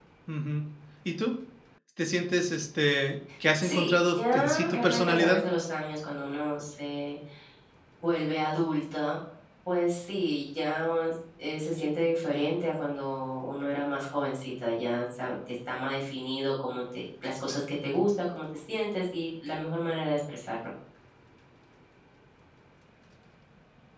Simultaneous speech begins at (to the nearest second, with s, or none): 4 s